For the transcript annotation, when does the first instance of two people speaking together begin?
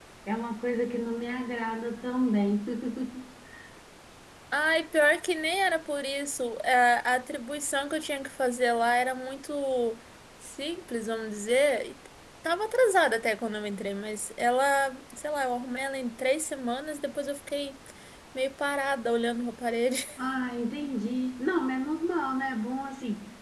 none

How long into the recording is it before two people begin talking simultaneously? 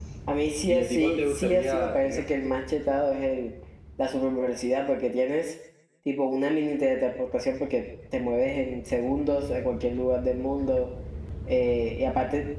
0.7 s

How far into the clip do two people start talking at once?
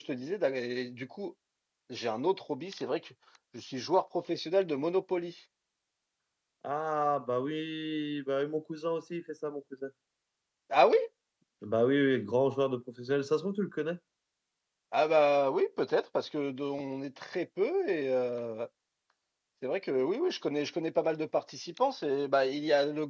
none

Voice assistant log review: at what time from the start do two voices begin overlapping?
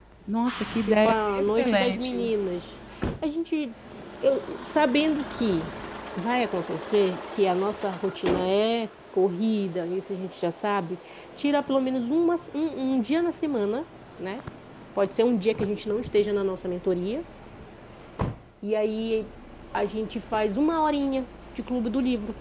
0.9 s

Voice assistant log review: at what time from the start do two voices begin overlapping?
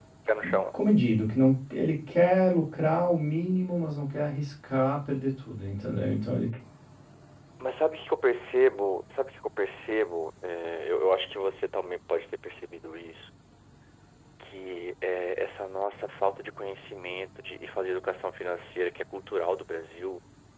none

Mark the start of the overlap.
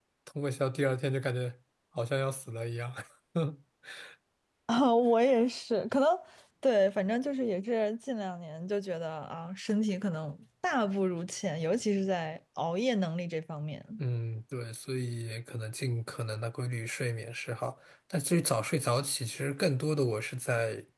none

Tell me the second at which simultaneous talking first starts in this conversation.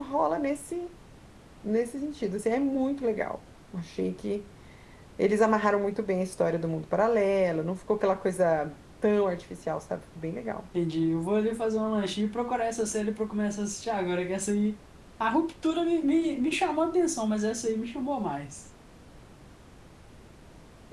none

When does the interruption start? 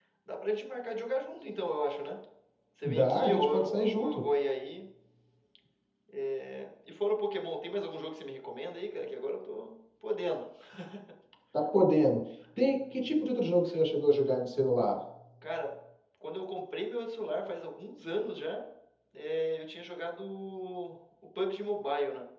2.8 s

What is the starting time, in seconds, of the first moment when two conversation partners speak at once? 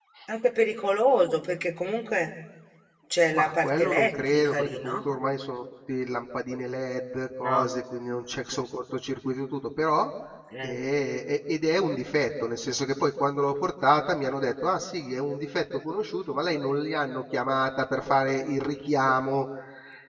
3.3 s

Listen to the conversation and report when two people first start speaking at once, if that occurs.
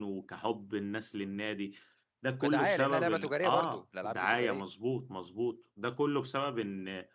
2.4 s

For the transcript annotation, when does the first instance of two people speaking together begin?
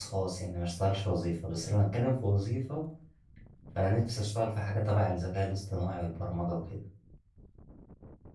none

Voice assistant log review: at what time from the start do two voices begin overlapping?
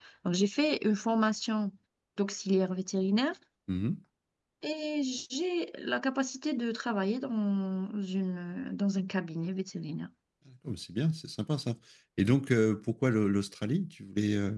none

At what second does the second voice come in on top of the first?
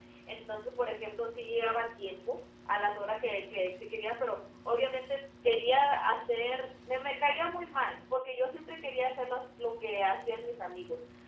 none

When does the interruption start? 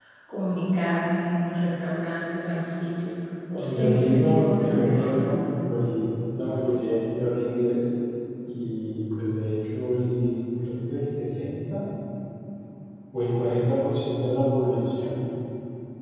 3.6 s

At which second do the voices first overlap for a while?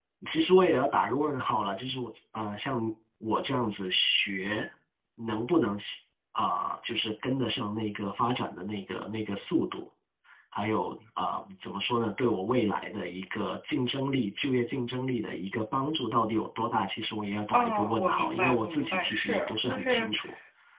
17.5 s

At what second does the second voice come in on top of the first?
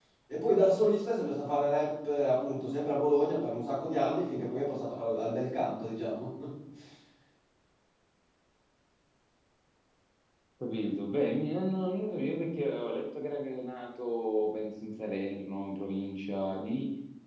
none

